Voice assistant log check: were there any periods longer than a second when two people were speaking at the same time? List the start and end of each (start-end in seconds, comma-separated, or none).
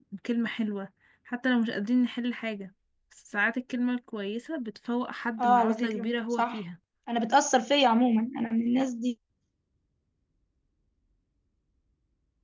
5.4-6.6